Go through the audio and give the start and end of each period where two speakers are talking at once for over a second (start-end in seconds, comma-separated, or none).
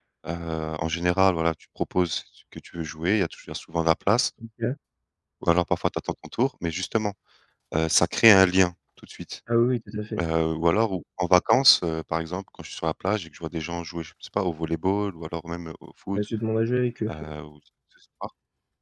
none